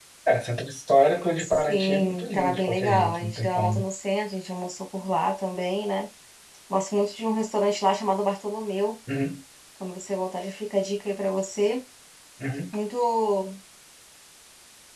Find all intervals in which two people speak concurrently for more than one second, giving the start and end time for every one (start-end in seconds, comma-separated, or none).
1.4-3.8